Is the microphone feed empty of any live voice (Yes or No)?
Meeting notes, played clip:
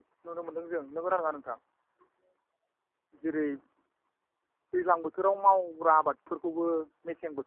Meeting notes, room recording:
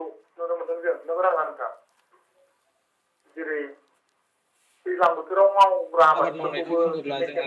No